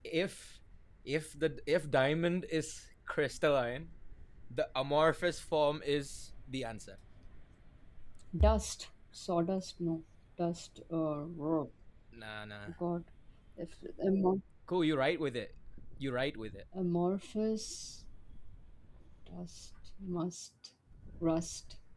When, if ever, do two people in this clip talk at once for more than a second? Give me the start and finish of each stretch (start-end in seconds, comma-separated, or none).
none